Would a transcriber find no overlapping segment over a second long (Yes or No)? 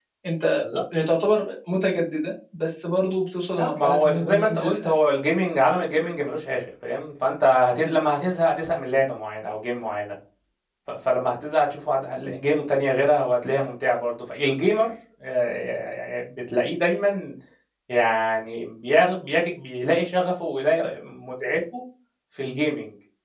No